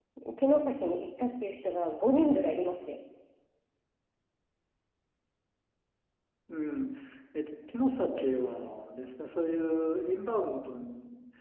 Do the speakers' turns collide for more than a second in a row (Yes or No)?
No